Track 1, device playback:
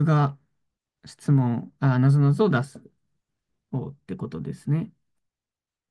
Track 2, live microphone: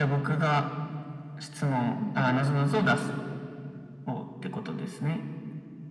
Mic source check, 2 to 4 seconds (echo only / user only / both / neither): both